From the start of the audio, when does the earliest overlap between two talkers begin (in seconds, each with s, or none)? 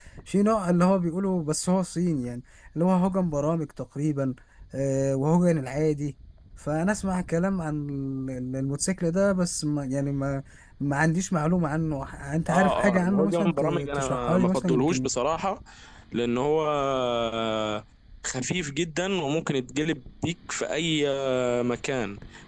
12.5 s